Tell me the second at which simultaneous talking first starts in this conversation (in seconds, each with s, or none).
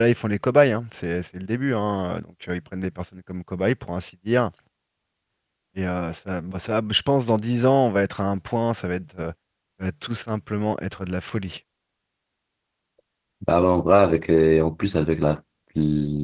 none